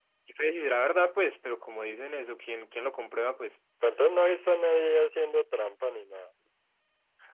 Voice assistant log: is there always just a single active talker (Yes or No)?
Yes